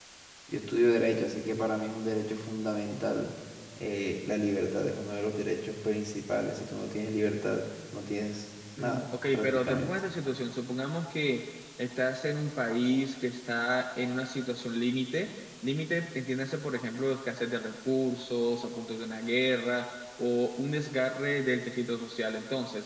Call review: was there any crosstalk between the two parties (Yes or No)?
Yes